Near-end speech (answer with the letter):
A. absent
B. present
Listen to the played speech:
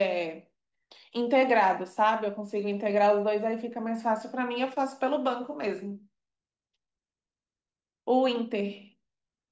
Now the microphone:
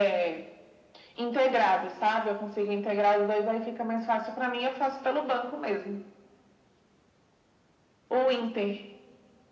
A